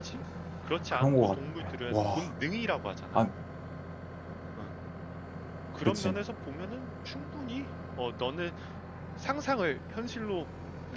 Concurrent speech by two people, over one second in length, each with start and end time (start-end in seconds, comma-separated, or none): 0.9-2.3